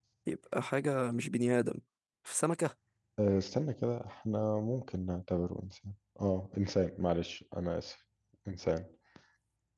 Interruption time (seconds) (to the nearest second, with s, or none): none